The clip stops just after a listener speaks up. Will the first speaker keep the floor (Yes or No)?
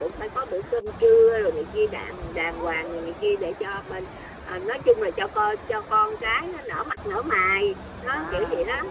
No